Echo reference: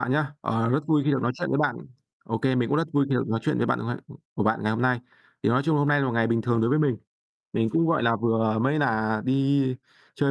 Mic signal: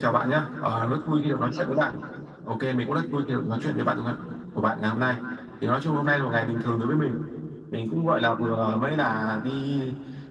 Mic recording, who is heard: echo only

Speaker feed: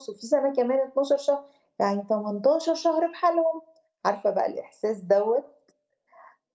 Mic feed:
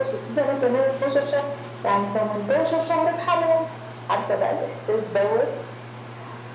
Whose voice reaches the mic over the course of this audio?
echo only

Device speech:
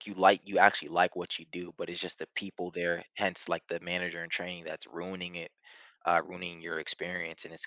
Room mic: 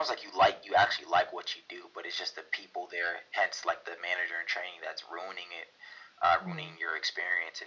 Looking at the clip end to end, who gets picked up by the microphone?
both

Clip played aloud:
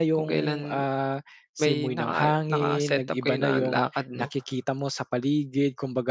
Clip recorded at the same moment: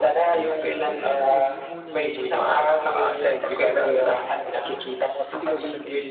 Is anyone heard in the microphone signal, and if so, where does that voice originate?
both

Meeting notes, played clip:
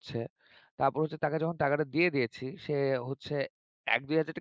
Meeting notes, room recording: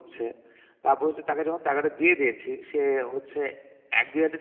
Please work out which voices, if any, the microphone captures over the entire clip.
echo only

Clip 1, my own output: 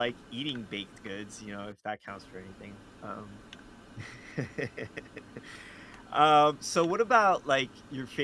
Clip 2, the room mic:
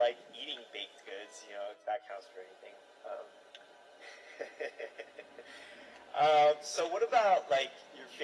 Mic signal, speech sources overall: echo only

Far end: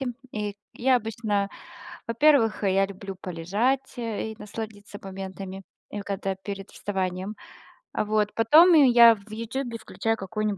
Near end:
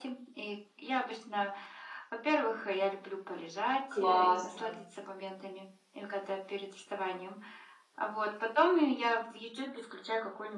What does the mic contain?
both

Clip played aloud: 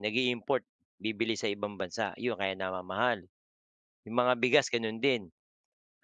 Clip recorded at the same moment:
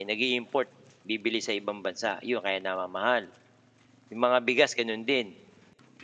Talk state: echo only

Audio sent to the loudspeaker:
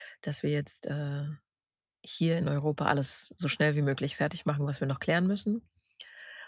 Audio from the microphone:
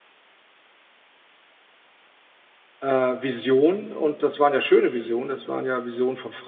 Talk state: user only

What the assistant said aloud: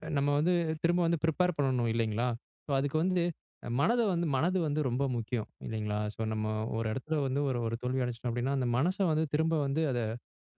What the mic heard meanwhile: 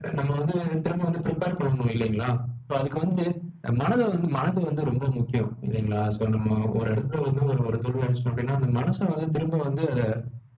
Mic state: echo only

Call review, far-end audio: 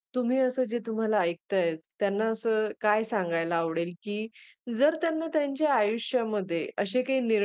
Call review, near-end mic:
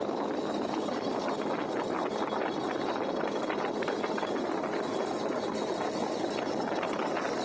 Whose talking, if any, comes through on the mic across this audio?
neither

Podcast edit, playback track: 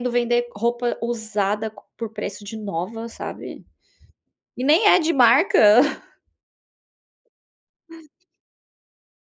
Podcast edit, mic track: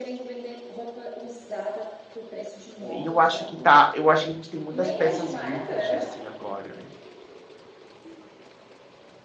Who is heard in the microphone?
both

